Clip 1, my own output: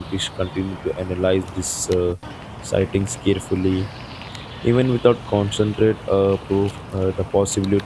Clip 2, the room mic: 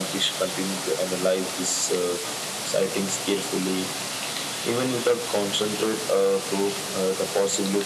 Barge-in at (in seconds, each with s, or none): none